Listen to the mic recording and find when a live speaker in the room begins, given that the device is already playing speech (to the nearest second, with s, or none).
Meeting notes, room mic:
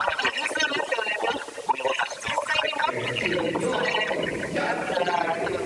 3 s